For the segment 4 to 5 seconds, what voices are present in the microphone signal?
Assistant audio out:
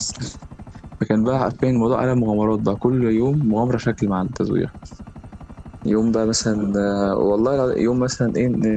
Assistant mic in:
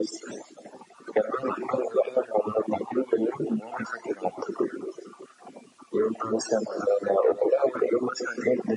echo only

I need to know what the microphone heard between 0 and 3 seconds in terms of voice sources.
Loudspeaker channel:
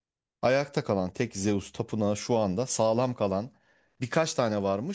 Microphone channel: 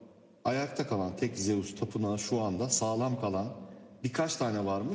echo only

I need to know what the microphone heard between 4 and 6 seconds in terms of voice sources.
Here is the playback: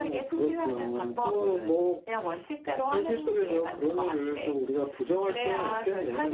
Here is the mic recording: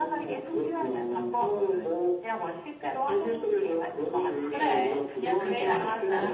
both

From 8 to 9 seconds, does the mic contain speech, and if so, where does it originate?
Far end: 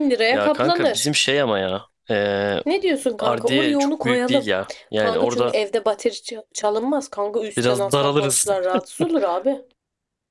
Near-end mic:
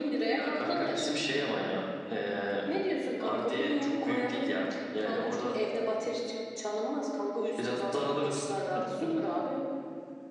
echo only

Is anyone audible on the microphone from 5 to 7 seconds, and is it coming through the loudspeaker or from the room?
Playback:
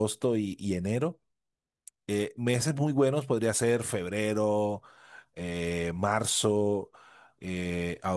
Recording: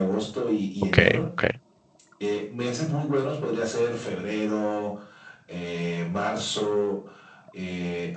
echo only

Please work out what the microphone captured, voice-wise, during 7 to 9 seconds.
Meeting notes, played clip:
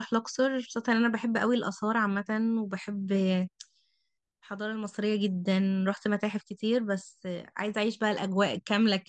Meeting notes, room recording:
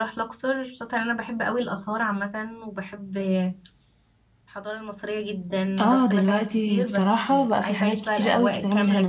both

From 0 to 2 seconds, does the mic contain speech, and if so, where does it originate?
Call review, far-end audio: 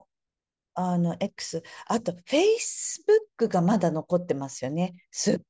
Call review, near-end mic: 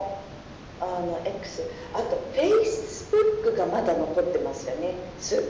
echo only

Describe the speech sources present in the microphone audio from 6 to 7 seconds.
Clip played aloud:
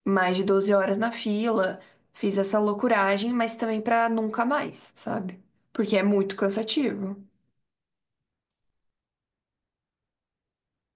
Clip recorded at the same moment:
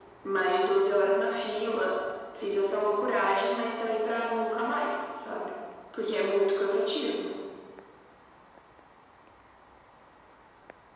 echo only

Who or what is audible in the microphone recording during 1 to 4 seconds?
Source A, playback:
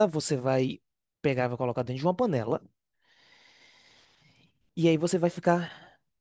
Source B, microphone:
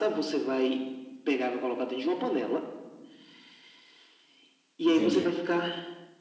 echo only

